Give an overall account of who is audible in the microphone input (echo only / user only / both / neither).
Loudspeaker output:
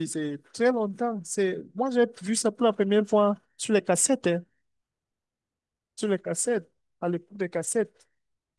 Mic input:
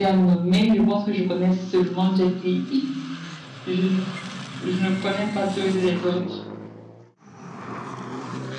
user only